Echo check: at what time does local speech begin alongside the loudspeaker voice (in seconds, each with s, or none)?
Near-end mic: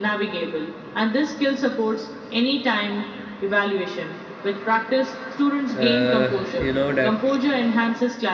5.8 s